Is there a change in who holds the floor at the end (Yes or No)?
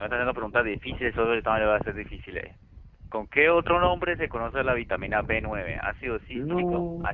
No